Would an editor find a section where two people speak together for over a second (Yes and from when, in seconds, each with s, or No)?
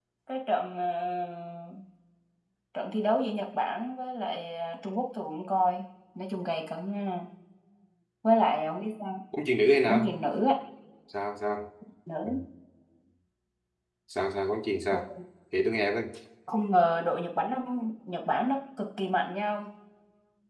No